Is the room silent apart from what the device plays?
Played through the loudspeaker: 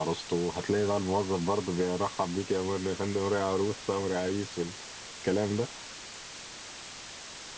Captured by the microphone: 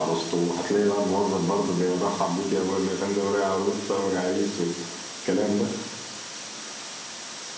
Yes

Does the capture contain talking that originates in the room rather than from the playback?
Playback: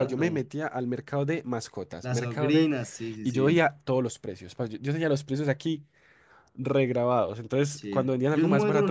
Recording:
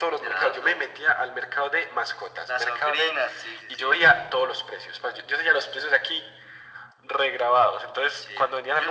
No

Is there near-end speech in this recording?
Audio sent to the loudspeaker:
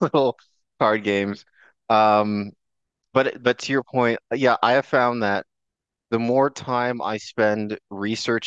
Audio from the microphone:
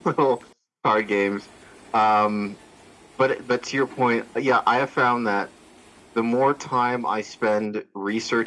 No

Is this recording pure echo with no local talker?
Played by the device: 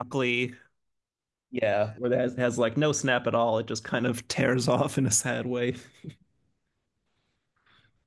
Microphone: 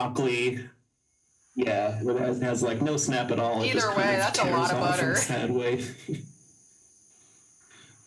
No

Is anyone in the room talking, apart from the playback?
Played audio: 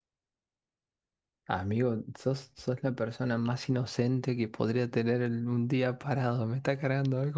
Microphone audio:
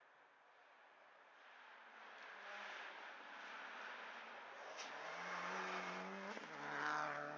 No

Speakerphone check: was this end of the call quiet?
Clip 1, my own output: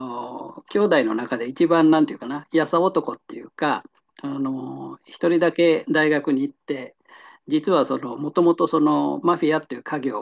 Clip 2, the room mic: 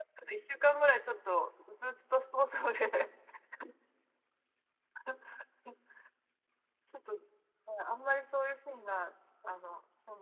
No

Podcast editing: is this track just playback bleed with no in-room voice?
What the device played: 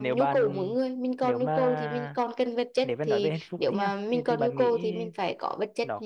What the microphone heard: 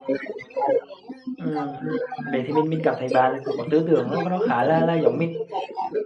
No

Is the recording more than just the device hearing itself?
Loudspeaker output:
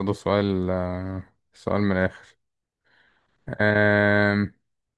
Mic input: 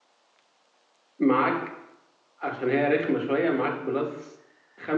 Yes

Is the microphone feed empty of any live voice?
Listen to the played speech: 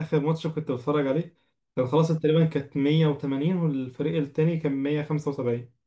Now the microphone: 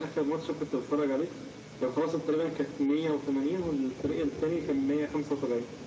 Yes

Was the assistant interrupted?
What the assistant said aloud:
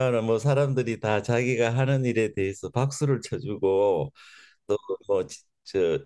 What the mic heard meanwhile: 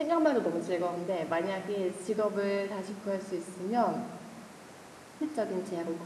Yes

